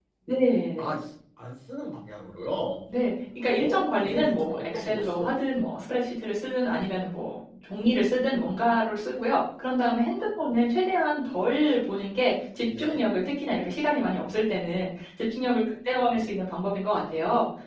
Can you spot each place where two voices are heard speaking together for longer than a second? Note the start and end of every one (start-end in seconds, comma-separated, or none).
3.6-5.3